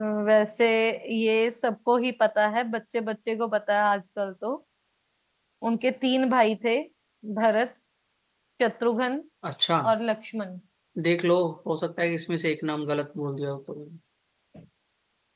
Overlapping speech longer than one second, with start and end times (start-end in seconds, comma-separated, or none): none